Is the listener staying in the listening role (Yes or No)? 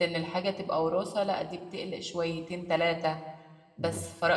Yes